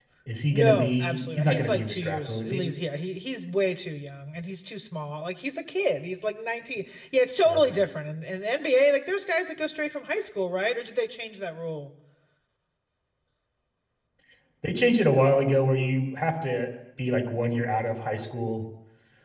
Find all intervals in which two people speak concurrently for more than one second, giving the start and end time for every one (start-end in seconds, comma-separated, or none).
0.5-2.6